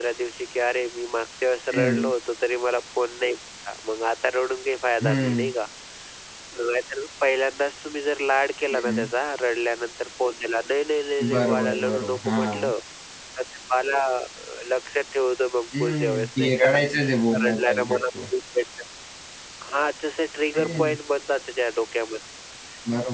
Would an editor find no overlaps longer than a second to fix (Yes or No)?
No